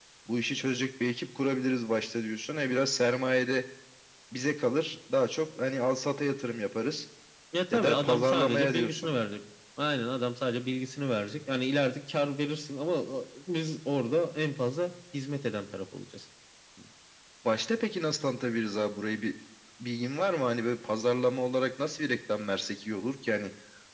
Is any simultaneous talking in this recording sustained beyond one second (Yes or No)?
Yes